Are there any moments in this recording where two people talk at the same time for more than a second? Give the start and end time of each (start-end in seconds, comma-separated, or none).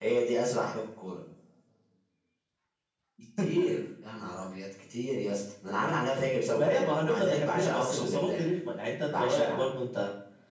6.5-8.4